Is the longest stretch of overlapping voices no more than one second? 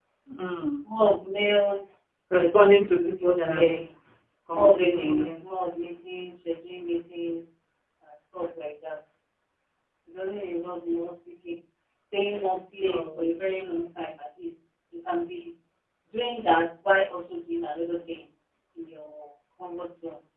No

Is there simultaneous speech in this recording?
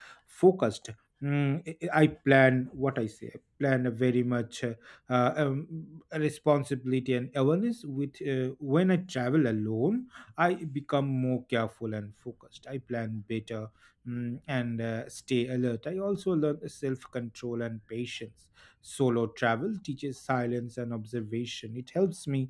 No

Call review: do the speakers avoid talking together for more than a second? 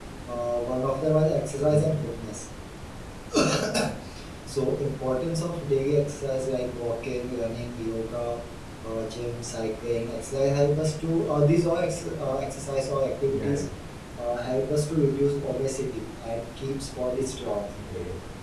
Yes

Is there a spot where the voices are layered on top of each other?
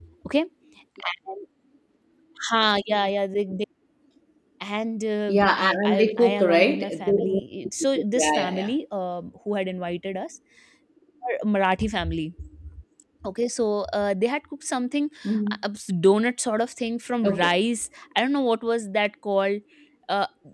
Yes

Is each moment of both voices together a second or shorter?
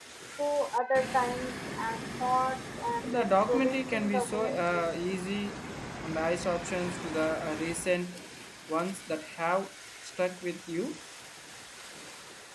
No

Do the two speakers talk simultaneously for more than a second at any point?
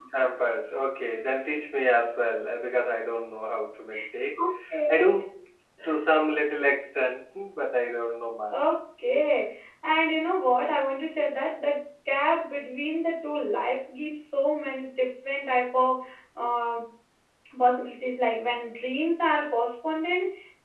No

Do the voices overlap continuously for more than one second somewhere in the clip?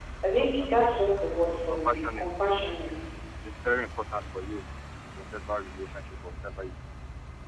Yes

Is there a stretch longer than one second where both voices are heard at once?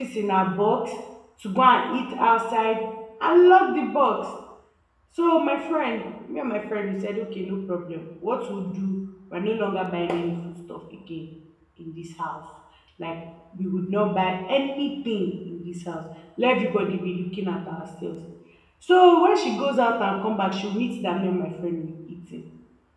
No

